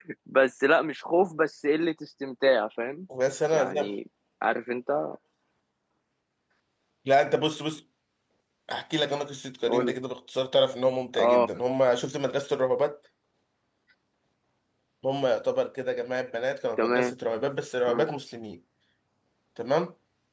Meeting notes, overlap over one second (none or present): none